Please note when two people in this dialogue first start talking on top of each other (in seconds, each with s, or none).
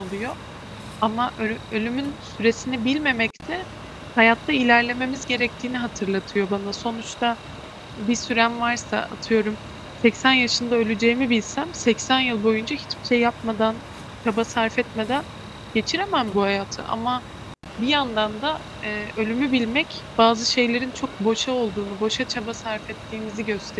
none